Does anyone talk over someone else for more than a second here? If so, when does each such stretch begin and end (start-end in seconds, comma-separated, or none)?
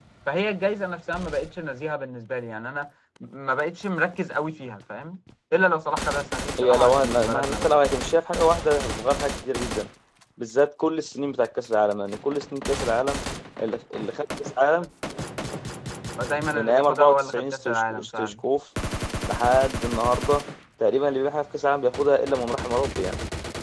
6.6-8.0, 16.5-18.3